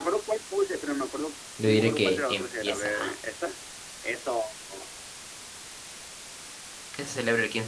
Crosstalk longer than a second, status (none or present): present